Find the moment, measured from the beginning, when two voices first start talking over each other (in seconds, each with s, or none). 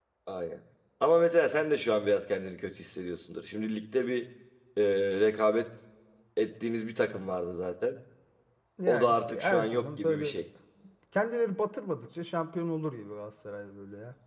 8.9 s